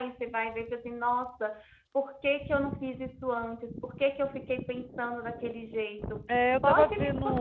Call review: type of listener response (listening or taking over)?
taking over